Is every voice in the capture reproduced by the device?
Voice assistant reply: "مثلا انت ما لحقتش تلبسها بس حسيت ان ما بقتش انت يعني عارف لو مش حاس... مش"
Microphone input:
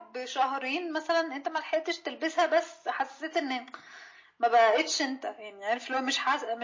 Yes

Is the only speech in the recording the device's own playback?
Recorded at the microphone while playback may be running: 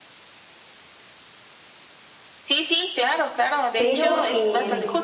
No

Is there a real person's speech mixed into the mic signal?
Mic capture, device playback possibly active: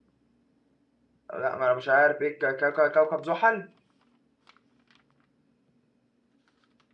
Yes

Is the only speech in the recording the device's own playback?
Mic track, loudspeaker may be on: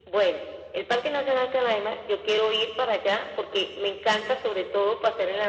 Yes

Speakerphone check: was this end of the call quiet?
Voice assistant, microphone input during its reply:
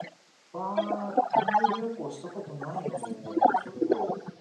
No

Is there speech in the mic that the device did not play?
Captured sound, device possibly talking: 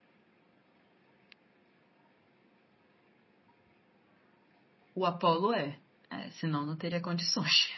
Yes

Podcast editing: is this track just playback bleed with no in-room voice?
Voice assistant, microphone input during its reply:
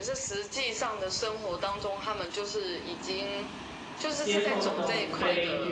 No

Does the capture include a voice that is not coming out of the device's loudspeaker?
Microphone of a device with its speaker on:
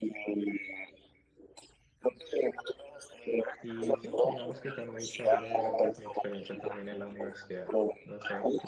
Yes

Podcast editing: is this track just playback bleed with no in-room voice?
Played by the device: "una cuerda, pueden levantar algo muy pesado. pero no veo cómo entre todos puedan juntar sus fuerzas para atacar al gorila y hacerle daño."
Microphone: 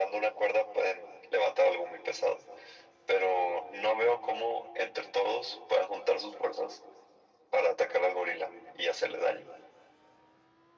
Yes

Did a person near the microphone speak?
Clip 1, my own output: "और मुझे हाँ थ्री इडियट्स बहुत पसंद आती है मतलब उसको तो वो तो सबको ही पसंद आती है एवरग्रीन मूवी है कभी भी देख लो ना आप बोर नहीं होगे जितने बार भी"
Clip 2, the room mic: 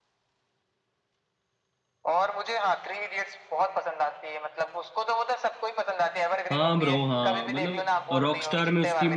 Yes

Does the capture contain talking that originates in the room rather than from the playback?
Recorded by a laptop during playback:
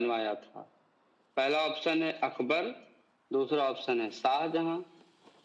No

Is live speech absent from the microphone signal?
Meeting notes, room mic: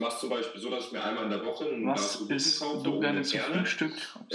No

